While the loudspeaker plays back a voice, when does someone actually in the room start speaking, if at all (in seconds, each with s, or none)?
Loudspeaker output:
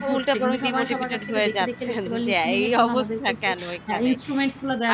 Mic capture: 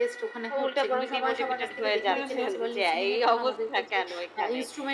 2.1 s